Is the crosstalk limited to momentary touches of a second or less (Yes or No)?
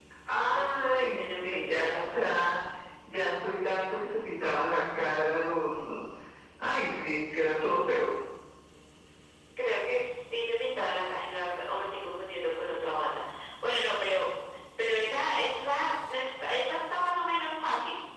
No